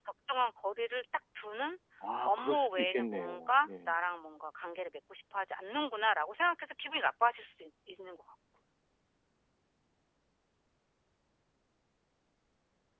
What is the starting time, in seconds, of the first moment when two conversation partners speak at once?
2.2 s

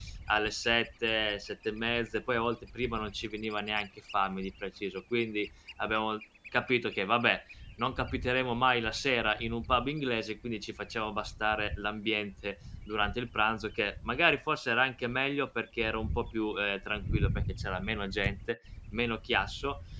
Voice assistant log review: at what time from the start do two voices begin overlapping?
none

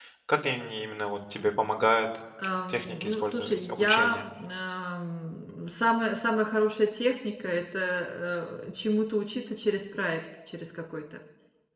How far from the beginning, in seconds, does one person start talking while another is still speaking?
2.7 s

